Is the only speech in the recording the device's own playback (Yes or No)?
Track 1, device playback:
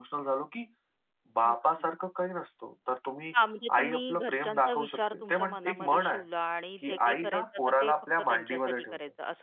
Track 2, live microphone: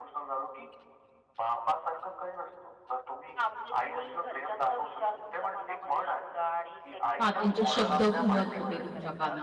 No